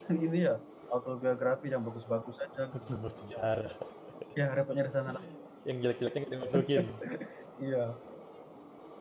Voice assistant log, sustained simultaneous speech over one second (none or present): none